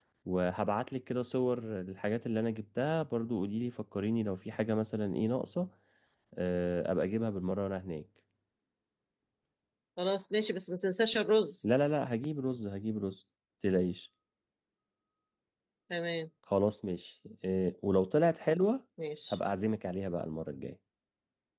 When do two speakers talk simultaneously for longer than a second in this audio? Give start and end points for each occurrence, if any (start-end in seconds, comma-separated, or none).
none